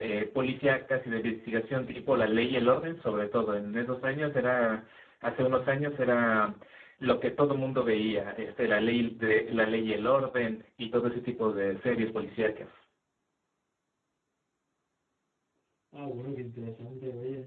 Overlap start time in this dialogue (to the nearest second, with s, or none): none